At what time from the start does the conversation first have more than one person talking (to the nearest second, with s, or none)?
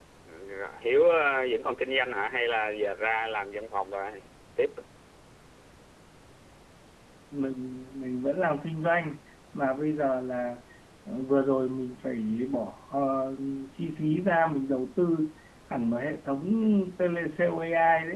none